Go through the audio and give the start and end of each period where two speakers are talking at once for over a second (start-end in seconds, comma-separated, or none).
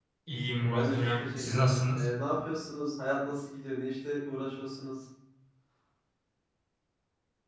0.6-2.1